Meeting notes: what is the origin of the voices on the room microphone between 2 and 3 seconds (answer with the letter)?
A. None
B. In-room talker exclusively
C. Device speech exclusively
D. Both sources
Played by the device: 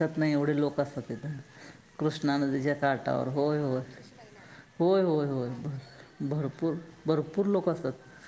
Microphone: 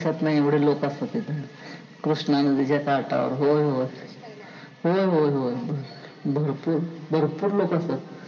C